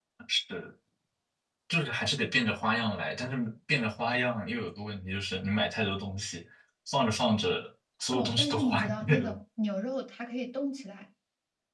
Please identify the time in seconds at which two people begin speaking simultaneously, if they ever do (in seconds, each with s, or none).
8.1 s